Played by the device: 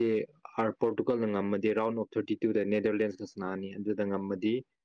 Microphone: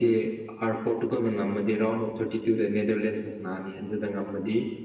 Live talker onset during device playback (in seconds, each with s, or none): none